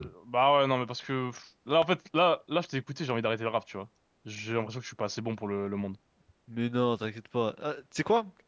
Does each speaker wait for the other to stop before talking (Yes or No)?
Yes